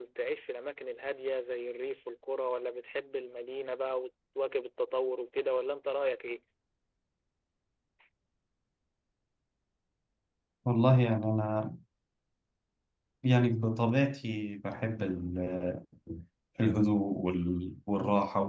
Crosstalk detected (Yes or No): No